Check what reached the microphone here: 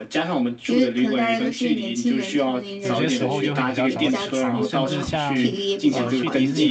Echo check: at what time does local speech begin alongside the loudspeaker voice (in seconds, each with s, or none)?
2.8 s